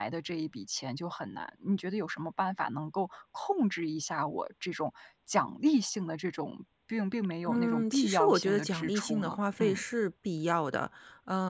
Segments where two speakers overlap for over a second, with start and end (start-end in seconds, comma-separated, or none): 7.5-9.8